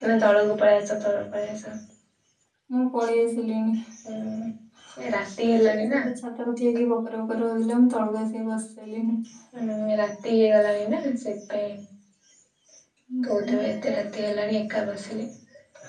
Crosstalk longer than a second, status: none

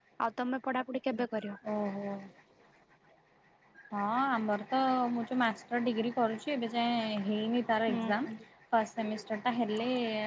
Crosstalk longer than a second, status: none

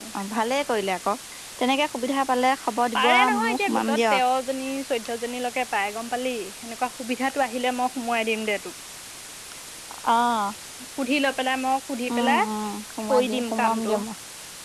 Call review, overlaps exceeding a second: present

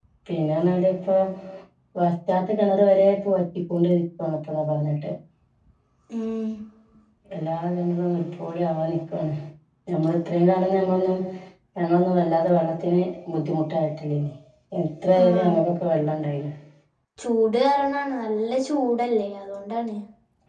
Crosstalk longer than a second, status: none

